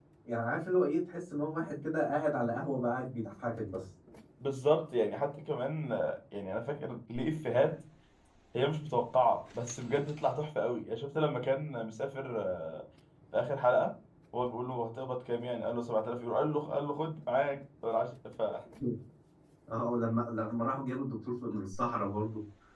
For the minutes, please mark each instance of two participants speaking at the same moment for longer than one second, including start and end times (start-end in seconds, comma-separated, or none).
none